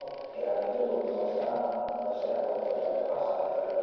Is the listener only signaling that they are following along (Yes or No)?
No